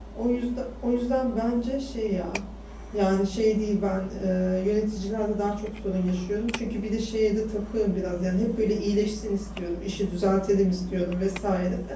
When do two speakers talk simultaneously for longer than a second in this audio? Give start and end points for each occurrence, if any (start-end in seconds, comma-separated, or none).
none